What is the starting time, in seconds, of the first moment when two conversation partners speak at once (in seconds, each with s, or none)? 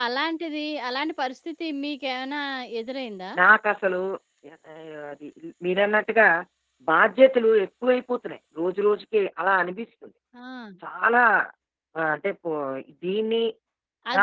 none